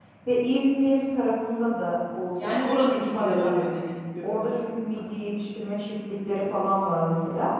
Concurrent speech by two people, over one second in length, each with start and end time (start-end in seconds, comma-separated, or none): none